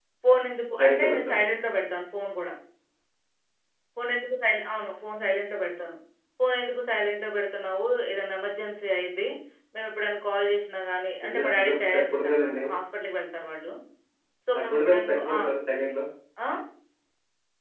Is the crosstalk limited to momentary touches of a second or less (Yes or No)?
No